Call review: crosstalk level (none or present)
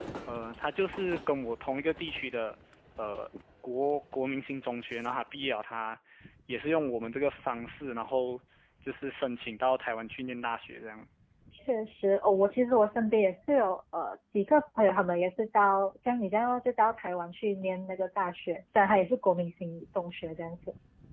none